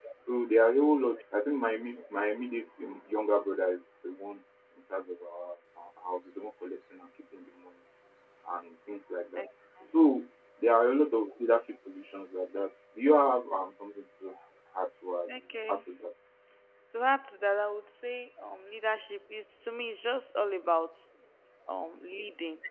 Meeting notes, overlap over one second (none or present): none